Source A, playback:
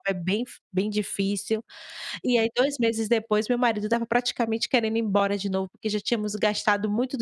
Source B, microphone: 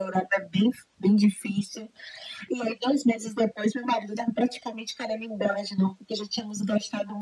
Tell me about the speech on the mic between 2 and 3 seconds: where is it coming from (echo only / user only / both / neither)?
echo only